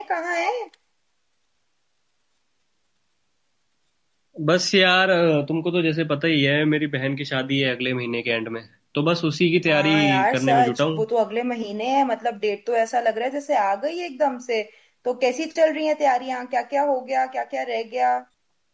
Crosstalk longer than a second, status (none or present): present